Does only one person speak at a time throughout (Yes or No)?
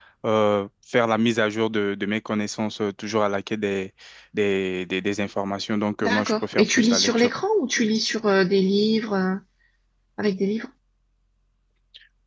No